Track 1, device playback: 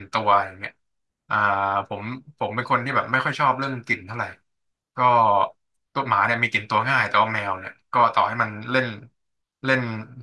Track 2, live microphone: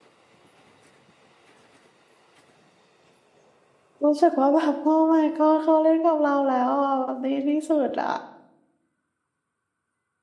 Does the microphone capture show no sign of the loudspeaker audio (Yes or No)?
Yes